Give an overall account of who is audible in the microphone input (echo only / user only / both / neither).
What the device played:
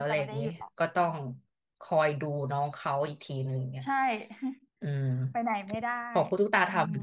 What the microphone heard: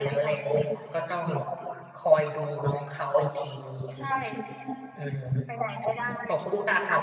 echo only